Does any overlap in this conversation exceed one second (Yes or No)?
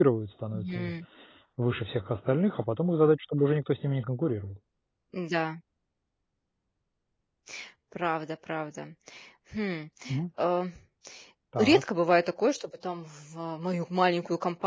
No